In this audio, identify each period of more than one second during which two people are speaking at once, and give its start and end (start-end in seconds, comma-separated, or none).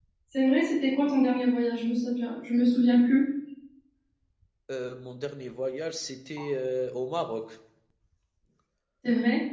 none